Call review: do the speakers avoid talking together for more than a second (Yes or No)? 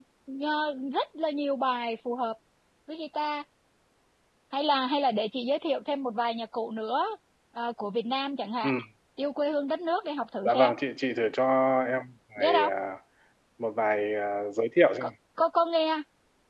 Yes